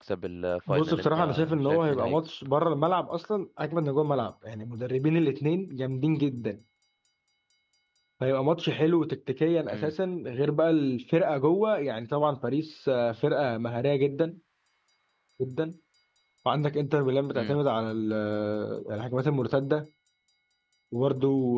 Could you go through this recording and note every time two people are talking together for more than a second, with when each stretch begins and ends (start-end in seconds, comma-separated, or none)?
0.7-2.1